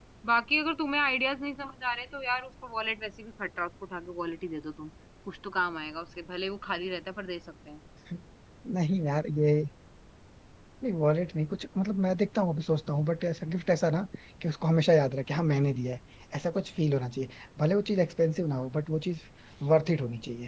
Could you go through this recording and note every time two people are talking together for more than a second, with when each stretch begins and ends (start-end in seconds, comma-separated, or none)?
none